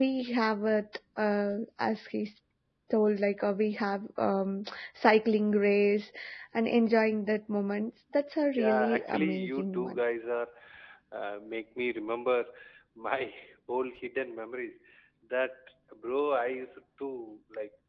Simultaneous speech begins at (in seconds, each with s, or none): 8.5 s